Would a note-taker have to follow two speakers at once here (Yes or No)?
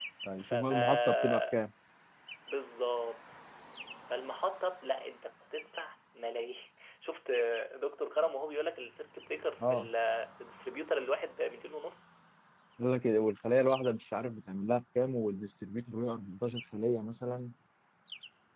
Yes